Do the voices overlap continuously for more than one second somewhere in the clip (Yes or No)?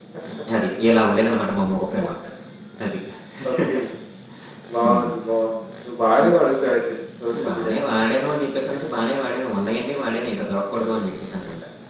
No